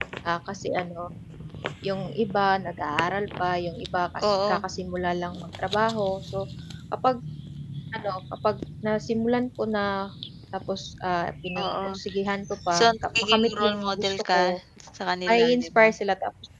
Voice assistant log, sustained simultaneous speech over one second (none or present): present